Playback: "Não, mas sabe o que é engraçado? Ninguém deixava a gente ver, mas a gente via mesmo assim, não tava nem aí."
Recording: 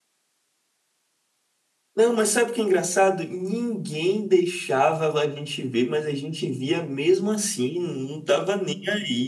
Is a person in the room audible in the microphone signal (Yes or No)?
No